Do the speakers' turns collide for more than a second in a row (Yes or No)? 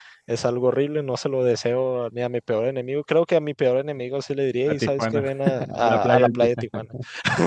Yes